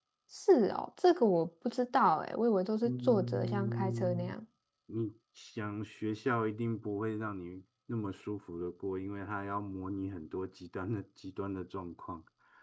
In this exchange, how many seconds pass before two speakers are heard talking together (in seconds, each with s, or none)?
2.8 s